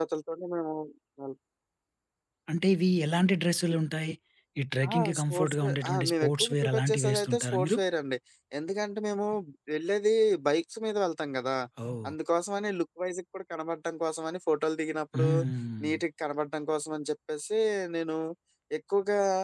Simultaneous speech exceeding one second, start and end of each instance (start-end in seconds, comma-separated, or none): 4.9-7.8